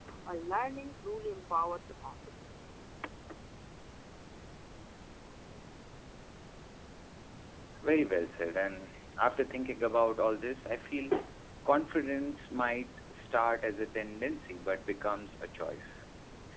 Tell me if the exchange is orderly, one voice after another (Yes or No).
Yes